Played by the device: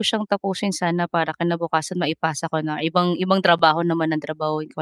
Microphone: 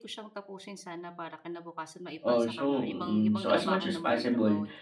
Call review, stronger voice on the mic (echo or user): user